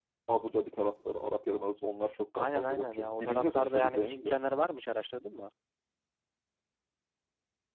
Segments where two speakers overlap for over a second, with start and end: 2.4-4.4

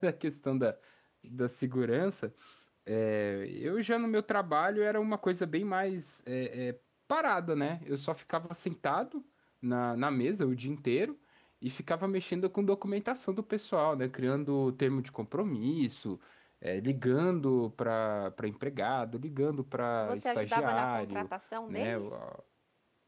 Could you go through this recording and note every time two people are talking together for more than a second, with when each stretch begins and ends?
20.0-21.3

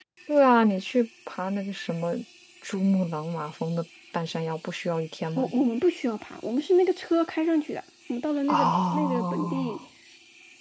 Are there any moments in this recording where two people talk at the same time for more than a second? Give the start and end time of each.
8.5-9.8

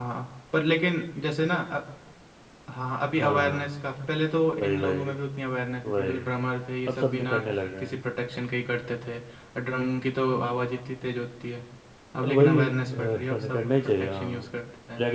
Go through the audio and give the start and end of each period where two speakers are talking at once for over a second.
12.3-14.5

